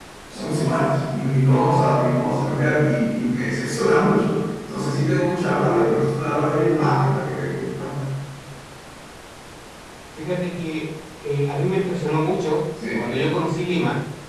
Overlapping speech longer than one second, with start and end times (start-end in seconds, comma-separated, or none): none